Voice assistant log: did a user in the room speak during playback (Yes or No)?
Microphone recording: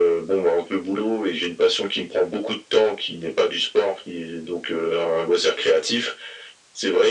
No